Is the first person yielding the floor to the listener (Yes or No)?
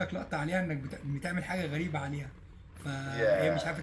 No